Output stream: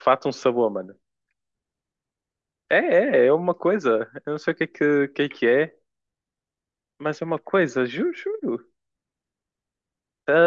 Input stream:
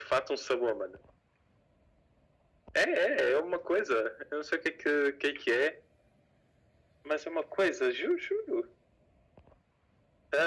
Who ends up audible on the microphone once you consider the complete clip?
echo only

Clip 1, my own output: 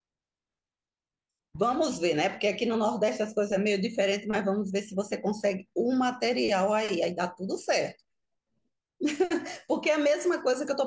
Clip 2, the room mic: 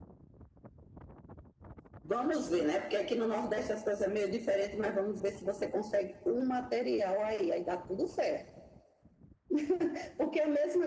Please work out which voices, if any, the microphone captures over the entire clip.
echo only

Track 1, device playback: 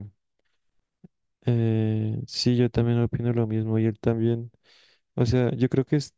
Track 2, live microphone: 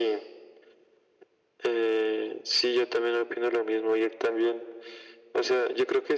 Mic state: echo only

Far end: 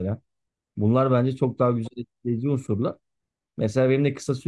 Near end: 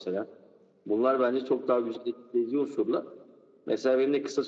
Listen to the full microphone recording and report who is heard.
echo only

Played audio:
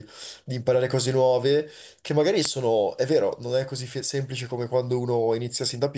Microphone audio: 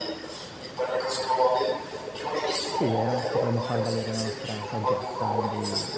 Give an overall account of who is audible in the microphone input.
both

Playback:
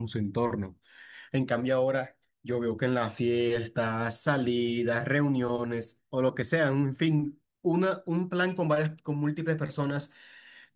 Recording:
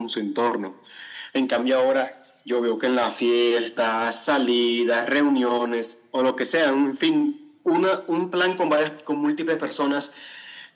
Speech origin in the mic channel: echo only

